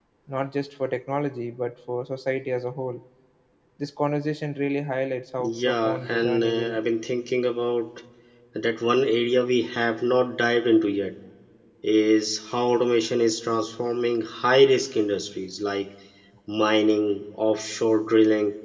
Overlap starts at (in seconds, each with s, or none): 5.4 s